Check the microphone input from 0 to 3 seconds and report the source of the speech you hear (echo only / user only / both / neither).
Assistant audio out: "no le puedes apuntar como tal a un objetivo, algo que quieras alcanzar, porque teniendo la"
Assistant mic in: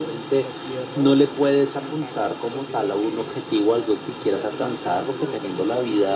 both